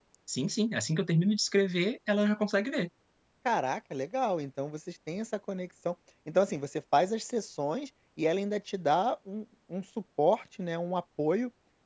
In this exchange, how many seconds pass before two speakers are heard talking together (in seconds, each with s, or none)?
none